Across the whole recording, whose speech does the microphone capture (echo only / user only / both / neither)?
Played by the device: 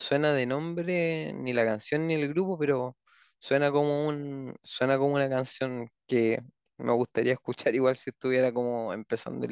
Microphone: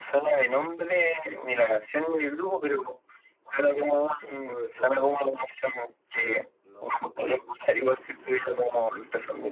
both